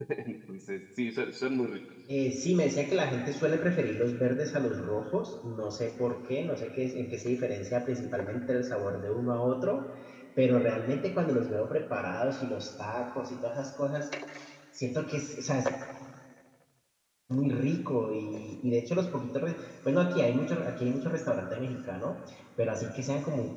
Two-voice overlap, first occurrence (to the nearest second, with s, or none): none